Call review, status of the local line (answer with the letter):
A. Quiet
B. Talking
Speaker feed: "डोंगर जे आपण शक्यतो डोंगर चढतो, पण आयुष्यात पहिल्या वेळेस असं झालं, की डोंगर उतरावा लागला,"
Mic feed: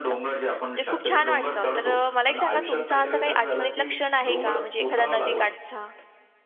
B